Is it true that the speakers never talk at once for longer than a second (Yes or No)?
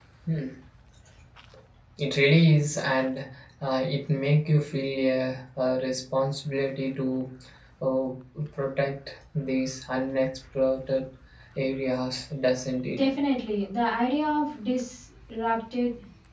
Yes